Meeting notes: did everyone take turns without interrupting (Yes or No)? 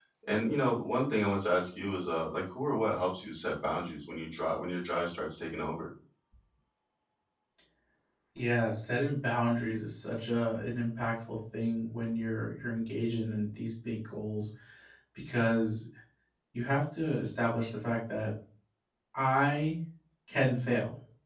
Yes